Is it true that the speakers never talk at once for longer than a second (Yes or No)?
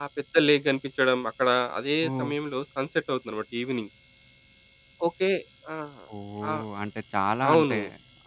Yes